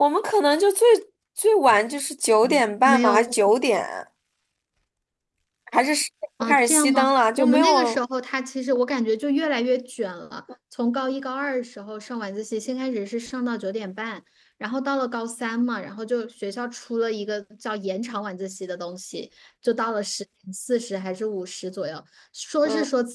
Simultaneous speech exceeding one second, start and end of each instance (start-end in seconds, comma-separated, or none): 6.4-8.0